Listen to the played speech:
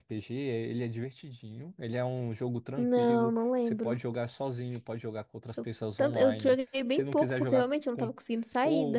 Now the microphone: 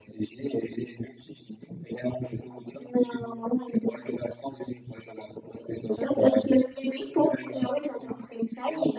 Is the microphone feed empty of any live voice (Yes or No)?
No